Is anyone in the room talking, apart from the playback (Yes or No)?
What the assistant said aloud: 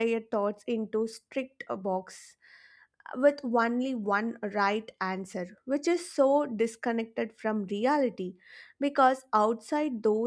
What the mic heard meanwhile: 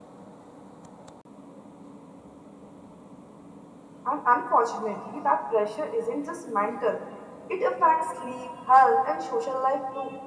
Yes